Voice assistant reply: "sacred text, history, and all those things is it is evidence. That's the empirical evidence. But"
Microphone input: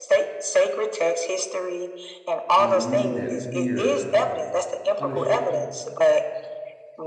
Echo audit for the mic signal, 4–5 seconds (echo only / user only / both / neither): both